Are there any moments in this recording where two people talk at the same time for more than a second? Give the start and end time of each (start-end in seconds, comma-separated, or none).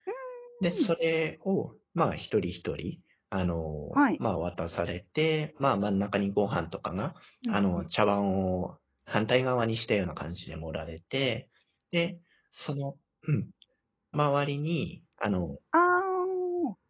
none